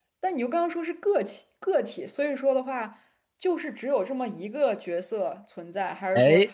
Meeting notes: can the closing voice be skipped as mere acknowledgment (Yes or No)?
Yes